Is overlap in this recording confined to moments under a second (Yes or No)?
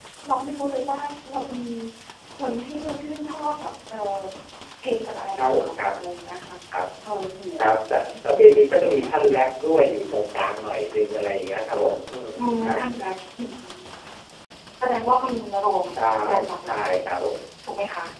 No